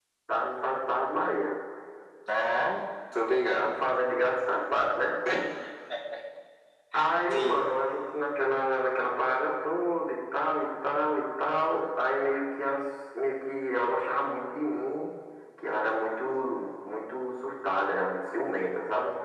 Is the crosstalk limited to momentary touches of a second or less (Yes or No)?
Yes